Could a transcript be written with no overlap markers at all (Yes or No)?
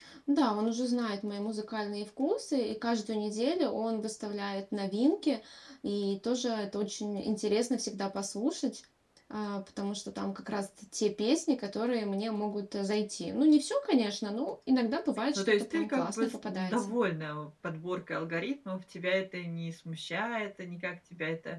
No